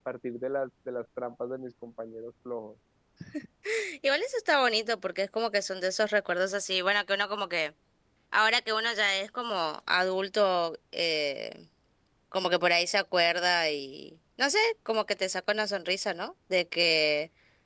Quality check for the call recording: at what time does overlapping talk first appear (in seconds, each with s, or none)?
none